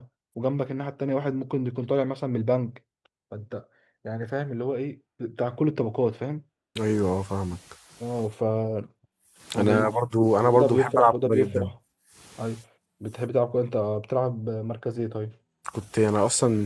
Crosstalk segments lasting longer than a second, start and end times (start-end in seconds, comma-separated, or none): 10.5-11.7